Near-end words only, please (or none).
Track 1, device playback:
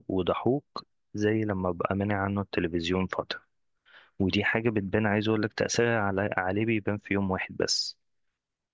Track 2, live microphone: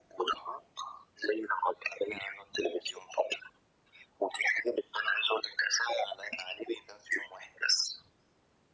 none